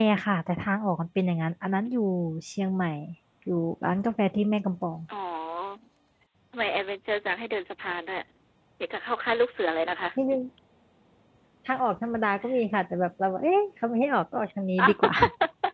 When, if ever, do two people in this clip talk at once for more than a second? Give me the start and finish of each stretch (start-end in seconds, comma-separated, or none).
none